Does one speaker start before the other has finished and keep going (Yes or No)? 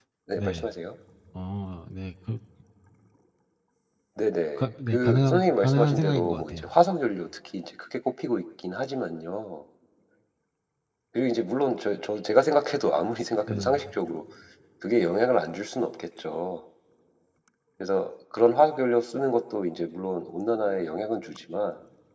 Yes